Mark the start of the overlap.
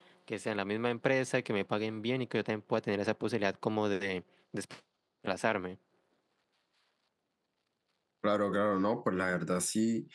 none

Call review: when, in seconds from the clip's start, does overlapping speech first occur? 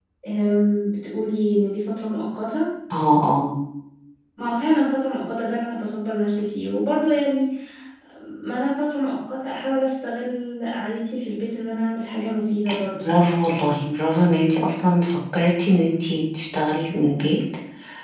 none

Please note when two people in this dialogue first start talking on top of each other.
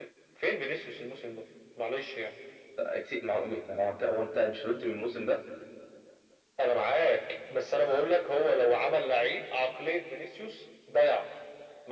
none

